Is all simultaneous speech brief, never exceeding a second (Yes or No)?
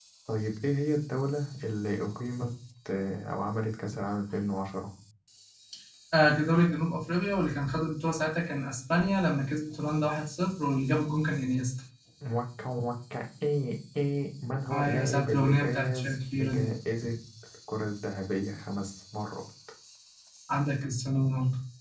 No